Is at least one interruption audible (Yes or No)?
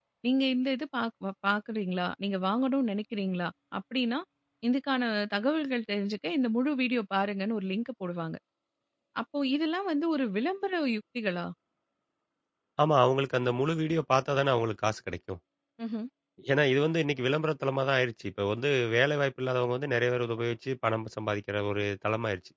No